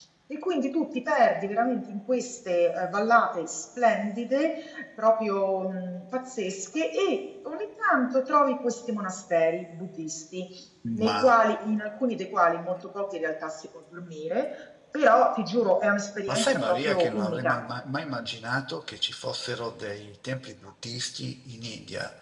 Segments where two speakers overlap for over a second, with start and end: 16.3-17.6

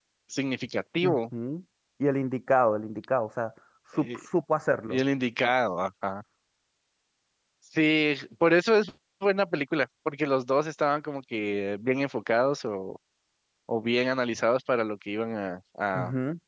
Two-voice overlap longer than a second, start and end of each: none

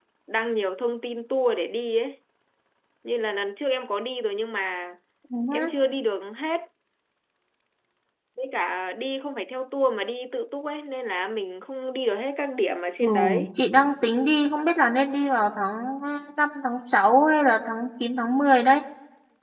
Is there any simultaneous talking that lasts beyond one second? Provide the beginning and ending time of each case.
none

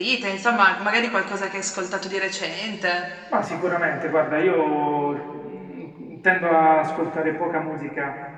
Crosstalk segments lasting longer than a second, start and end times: none

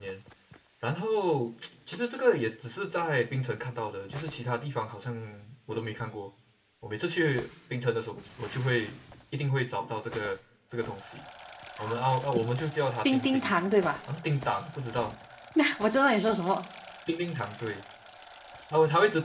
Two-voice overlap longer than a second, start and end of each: none

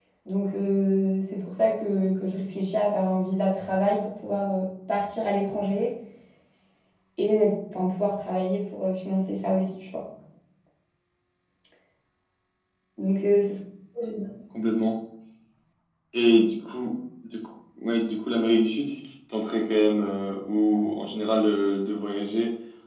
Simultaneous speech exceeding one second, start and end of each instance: none

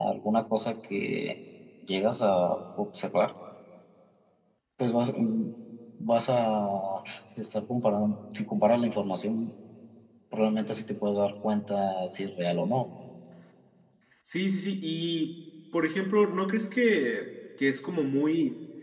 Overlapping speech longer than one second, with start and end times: none

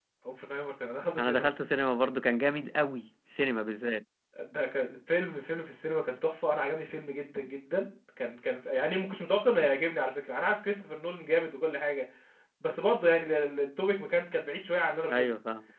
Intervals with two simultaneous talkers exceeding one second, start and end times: none

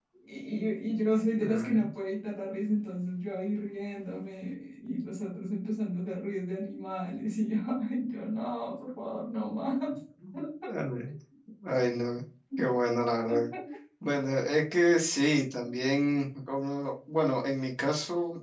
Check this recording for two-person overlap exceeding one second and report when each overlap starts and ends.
none

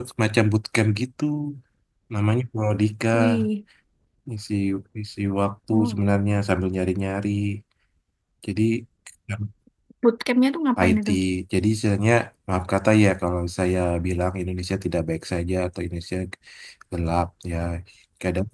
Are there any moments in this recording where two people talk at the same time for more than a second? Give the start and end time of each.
none

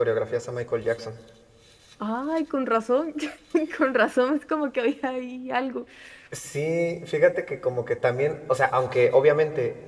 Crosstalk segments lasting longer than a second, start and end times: none

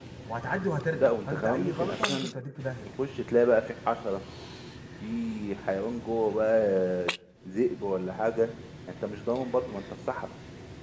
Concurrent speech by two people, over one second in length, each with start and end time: 0.9-2.3

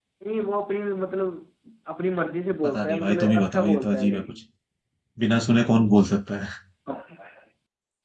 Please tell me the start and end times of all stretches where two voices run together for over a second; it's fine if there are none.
2.6-4.4

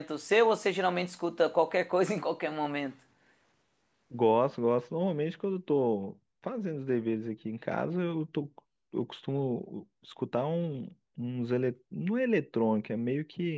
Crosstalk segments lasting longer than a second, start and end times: none

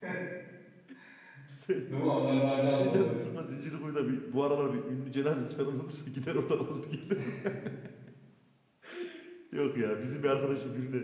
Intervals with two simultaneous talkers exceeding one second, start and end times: none

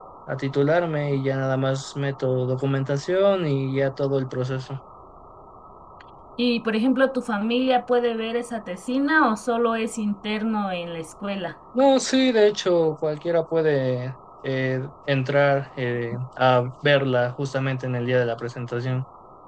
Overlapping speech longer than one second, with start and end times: none

